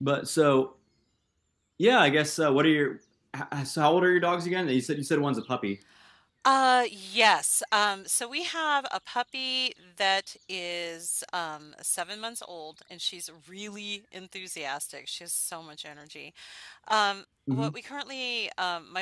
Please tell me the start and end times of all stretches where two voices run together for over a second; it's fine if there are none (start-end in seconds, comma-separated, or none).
none